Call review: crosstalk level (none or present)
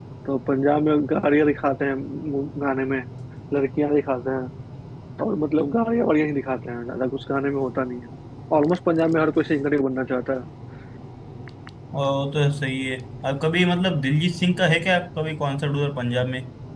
none